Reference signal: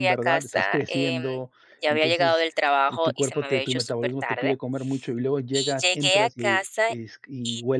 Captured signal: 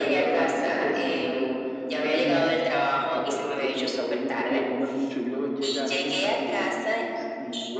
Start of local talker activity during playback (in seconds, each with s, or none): 2.2 s